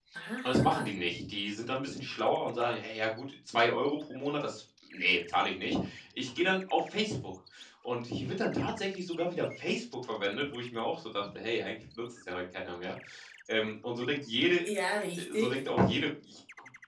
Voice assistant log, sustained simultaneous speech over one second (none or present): none